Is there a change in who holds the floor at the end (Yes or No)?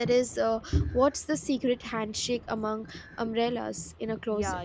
Yes